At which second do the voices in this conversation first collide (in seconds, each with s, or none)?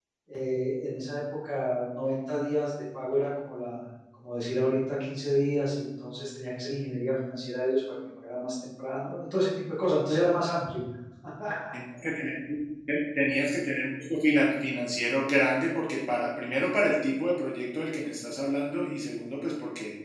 none